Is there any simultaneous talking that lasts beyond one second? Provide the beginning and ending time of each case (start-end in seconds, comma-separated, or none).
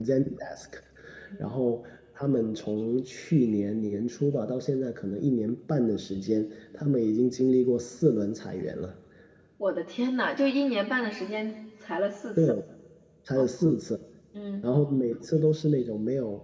none